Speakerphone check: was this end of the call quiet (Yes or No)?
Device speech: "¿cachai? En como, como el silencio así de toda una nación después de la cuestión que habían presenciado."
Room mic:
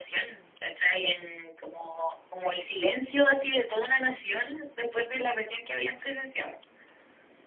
Yes